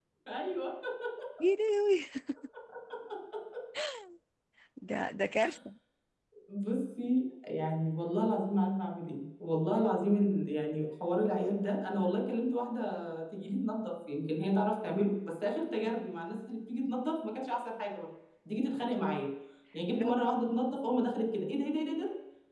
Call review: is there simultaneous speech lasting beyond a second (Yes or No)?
No